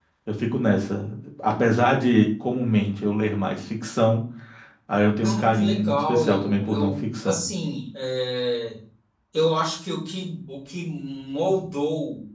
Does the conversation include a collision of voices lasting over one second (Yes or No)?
Yes